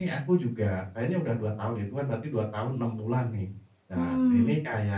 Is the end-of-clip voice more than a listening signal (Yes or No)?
No